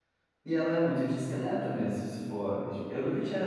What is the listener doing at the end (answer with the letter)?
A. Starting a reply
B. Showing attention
A